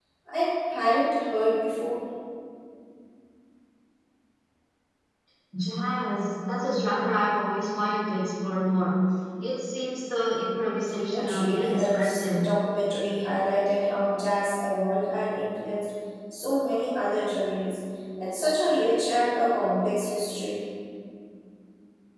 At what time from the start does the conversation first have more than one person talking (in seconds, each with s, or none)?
11.1 s